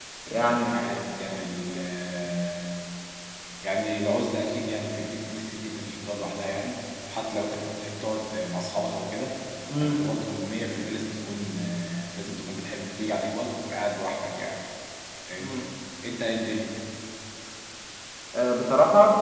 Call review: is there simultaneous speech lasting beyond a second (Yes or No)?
No